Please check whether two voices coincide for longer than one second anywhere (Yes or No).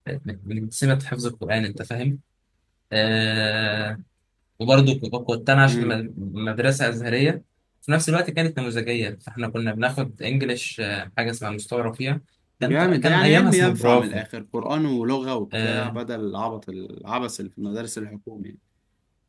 Yes